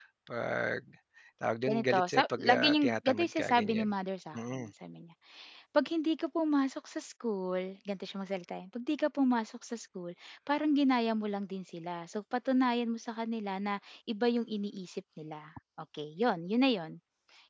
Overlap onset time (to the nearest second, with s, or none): 2 s